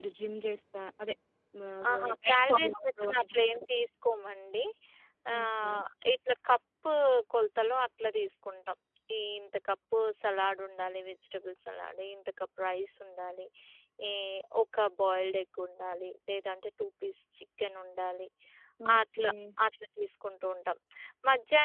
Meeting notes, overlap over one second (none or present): present